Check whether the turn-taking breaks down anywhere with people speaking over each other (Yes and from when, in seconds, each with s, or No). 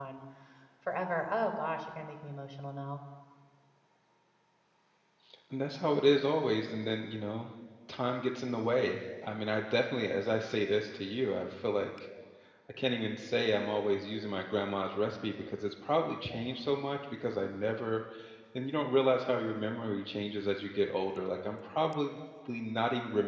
No